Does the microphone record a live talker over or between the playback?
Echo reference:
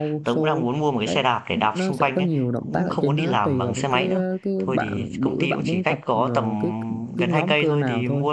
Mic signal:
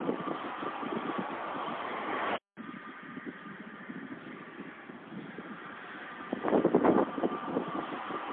No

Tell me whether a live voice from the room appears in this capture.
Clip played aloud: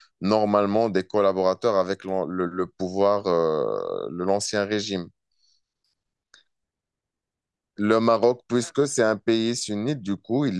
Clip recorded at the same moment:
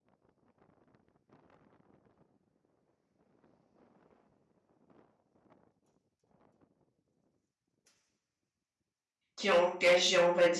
Yes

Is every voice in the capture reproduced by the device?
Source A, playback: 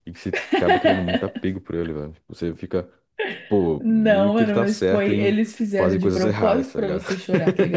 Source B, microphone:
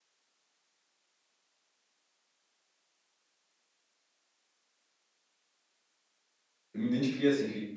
No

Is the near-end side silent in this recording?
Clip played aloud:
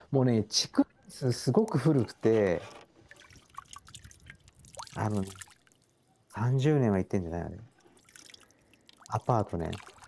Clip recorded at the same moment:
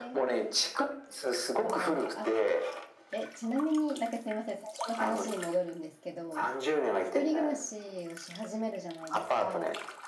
No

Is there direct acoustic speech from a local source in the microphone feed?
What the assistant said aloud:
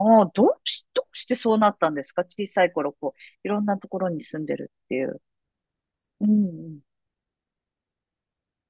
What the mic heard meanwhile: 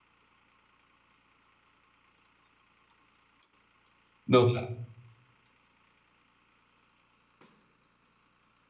Yes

